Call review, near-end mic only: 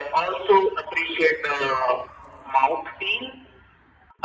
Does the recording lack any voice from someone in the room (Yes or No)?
Yes